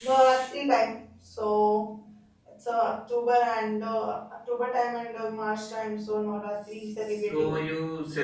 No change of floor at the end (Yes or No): No